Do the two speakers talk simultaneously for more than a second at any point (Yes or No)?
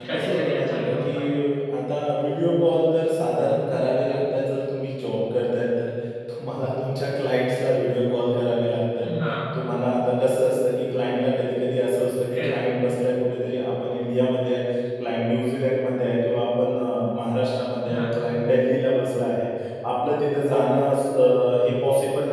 Yes